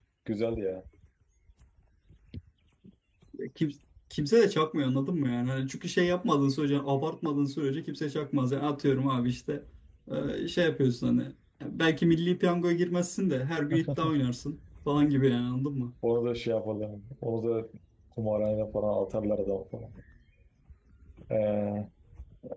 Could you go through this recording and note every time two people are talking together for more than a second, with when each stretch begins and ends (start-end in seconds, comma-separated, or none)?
none